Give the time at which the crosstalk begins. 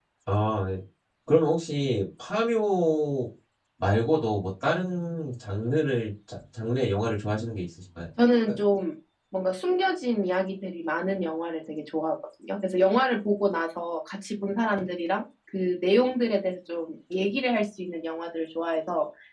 none

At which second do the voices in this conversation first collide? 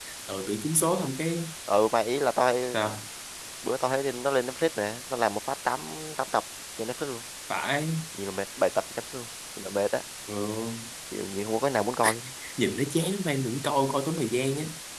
none

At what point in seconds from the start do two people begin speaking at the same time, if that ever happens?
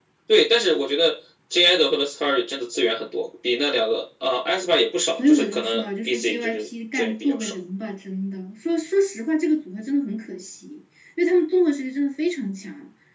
5.2 s

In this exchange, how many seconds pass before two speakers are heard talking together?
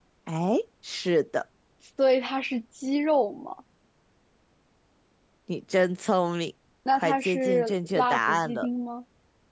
6.8 s

